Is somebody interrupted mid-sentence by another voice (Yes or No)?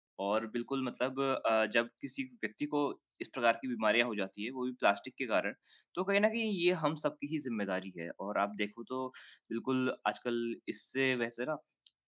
No